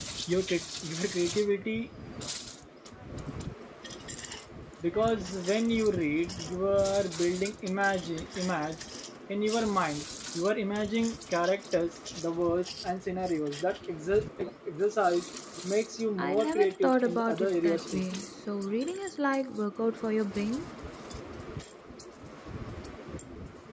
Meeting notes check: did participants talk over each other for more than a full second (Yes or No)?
Yes